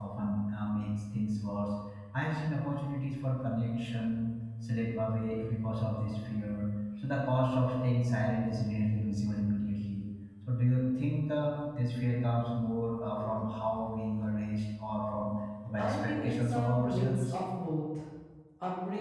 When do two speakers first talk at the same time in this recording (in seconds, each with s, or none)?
15.8 s